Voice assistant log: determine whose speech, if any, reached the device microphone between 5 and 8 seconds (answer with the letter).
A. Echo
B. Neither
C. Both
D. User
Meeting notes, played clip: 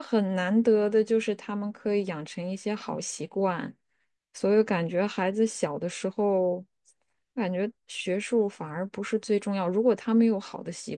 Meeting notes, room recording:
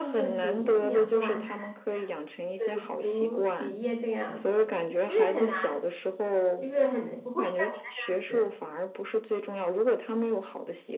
C